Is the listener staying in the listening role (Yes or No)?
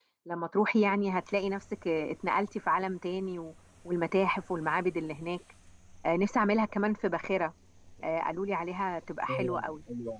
No